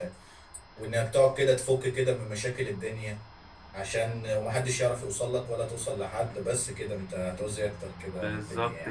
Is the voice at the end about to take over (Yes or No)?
Yes